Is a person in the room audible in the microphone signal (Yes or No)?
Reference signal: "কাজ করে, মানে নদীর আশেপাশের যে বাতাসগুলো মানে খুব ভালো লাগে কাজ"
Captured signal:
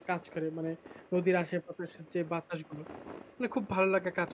No